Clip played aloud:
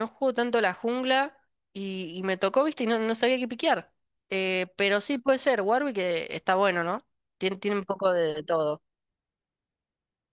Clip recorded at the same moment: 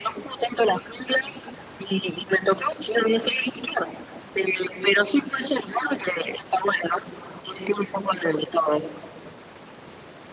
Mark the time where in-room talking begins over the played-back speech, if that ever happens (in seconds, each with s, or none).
none